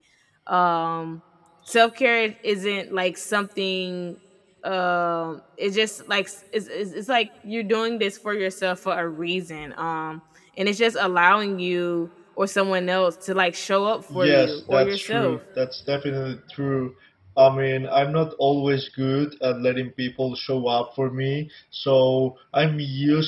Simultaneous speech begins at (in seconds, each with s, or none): 14.1 s